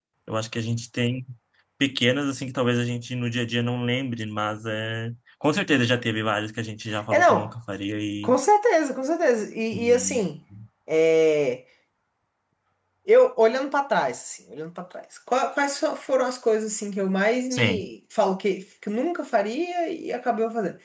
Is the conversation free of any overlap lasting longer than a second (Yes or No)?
Yes